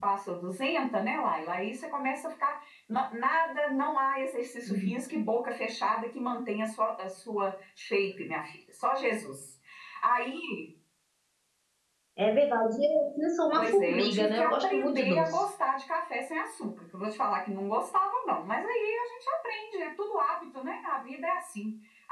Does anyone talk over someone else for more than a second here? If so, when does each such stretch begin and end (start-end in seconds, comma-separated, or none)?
13.6-15.3